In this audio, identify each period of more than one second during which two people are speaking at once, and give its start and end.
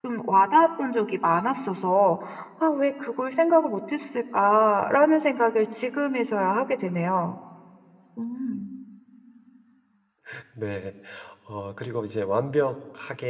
none

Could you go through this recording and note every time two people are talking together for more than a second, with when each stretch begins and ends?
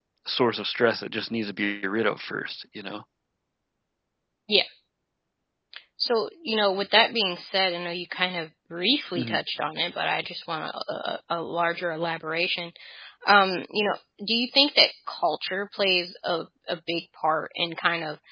none

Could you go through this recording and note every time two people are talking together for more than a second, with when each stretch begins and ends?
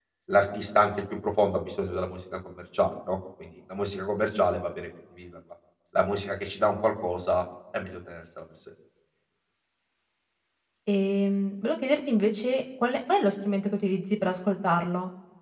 none

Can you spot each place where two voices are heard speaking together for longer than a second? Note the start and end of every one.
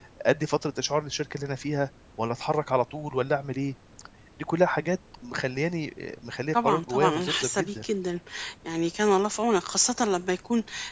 6.5-7.8

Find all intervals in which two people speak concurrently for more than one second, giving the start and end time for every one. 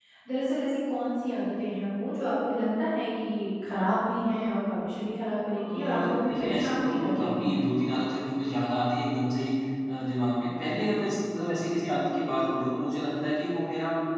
6.3-7.6

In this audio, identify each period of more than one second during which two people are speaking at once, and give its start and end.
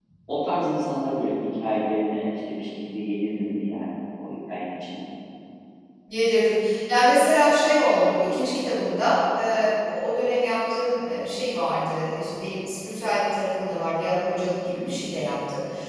none

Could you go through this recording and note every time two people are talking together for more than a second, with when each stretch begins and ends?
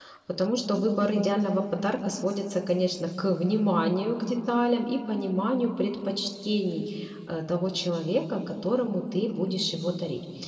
none

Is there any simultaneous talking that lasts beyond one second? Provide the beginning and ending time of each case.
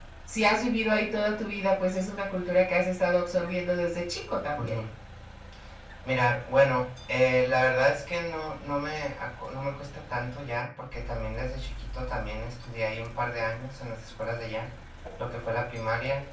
none

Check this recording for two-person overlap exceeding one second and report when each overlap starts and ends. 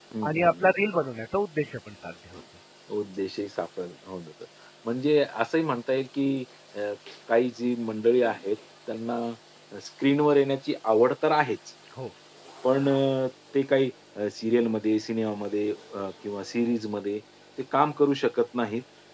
none

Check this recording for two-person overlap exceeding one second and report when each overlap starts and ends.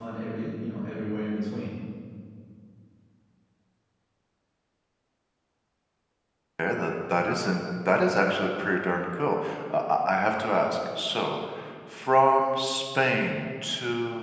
none

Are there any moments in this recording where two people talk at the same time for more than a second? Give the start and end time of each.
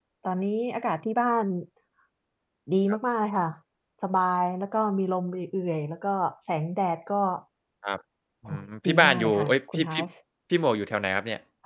8.5-10.0

